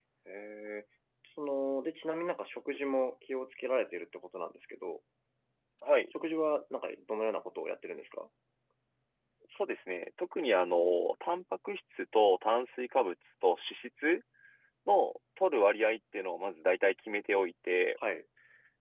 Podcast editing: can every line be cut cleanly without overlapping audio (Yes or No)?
Yes